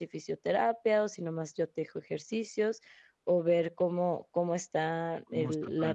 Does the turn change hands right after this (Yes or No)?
Yes